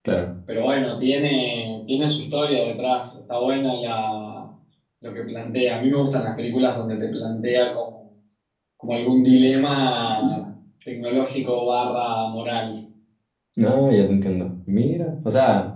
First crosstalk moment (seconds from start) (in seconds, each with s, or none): none